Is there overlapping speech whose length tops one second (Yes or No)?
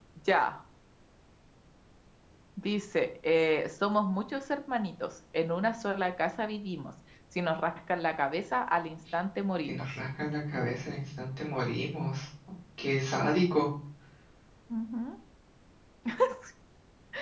No